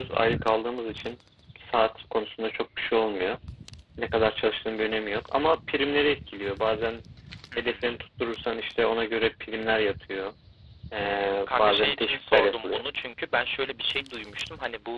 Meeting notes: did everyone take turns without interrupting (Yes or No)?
No